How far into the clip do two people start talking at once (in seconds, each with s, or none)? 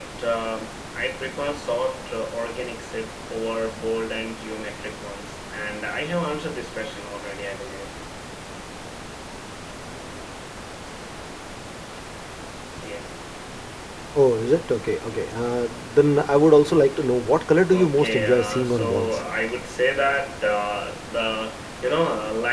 17.7 s